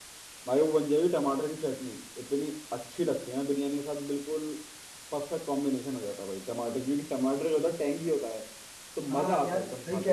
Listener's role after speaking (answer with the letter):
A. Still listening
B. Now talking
B